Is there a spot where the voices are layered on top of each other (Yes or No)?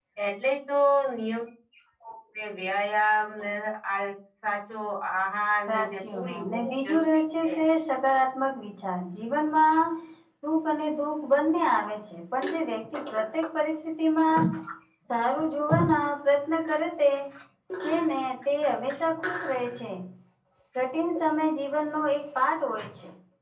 Yes